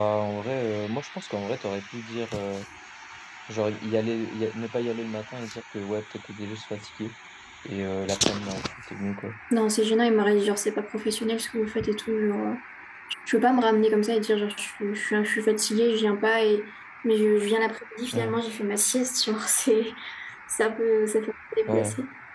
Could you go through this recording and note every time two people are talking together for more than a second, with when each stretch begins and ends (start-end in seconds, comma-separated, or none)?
none